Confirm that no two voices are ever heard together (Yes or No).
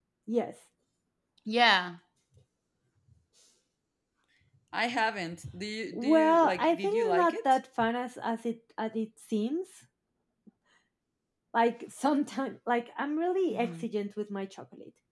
No